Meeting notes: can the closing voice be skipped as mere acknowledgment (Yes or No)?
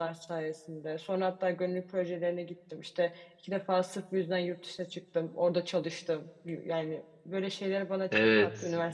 No